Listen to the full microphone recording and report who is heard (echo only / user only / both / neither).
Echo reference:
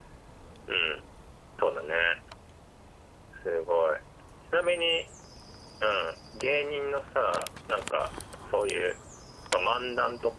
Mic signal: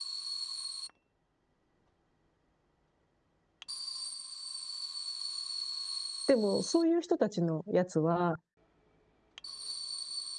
user only